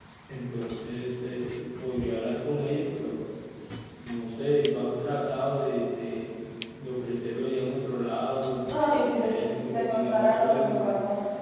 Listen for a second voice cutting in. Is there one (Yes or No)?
Yes